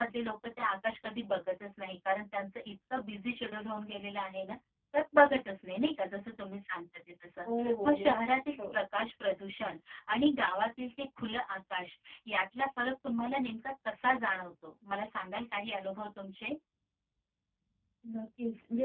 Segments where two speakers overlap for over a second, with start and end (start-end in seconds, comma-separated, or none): none